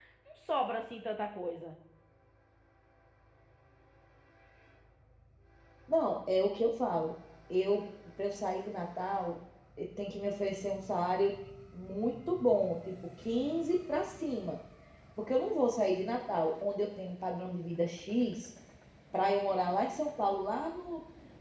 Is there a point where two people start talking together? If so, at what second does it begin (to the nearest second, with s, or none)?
none